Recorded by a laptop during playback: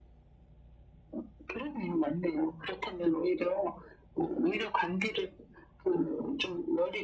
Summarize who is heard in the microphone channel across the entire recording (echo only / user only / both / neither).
echo only